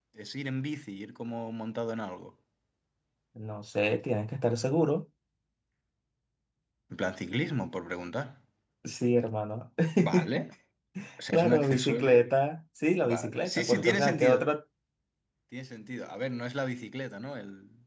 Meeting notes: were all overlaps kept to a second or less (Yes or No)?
No